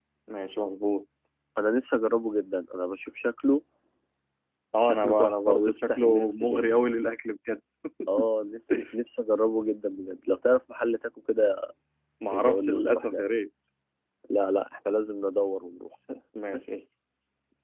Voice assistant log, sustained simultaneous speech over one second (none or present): present